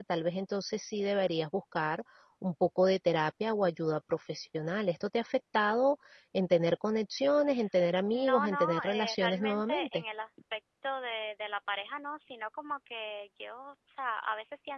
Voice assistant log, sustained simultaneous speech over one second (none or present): present